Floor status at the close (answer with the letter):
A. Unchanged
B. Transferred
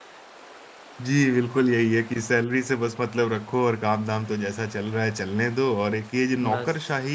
A